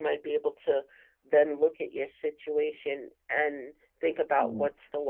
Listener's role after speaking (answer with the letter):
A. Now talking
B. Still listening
B